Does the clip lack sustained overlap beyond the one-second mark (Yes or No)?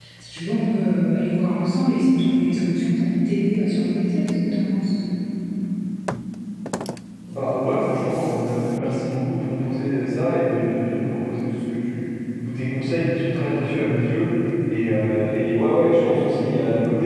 Yes